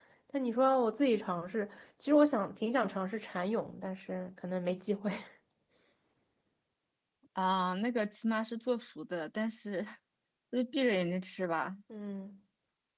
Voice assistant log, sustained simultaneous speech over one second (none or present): none